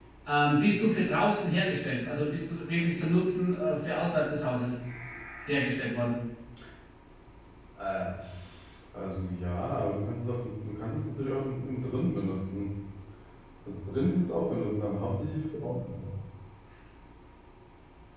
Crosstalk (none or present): none